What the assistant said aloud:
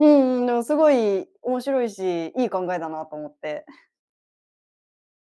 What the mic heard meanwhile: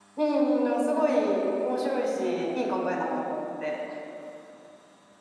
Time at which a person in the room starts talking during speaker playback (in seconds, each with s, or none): none